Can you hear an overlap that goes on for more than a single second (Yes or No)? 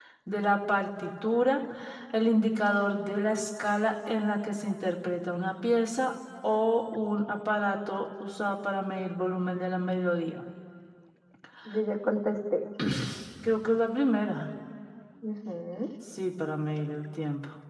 No